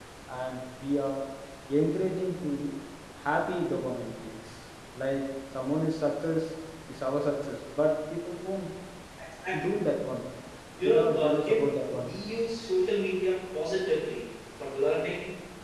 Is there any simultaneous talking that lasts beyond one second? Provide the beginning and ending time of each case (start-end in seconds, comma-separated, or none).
10.8-12.1